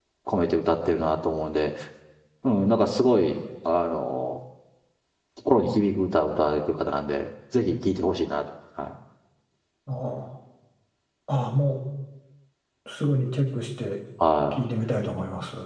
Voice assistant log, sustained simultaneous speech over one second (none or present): none